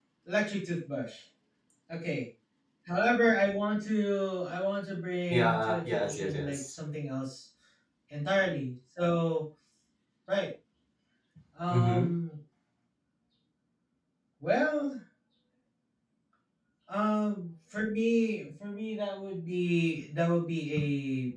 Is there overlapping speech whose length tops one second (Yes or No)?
Yes